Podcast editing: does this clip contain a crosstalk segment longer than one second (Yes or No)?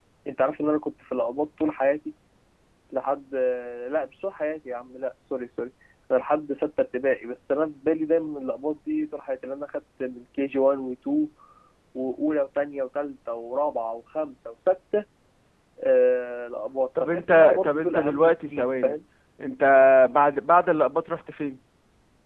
Yes